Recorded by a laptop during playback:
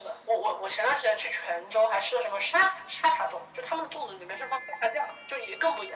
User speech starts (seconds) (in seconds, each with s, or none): none